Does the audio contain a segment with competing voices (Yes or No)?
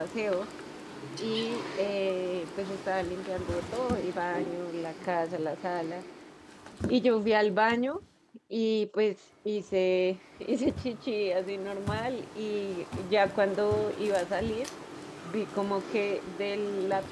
No